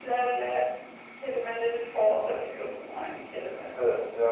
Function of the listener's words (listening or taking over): taking over